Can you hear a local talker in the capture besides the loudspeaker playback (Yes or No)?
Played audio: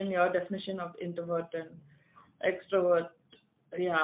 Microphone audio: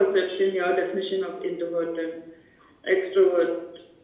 No